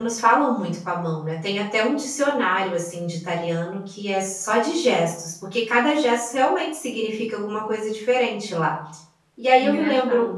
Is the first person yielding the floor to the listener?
No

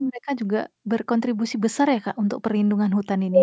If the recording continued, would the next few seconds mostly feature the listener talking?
Yes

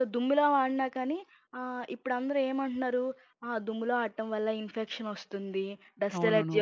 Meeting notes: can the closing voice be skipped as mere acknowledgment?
Yes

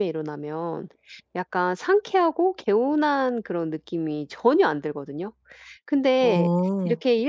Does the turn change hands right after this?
No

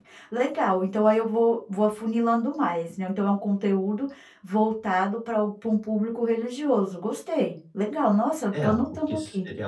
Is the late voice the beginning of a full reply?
Yes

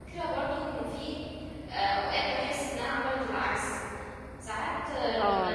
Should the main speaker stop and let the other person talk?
Yes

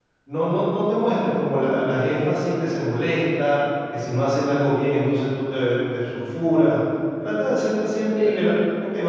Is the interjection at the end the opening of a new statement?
No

